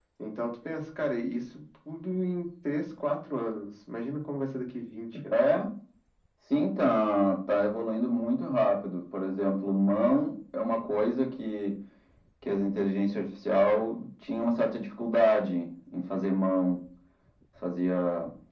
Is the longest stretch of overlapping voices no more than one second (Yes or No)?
Yes